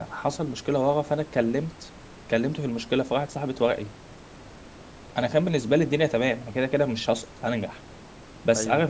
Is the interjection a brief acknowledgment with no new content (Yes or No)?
Yes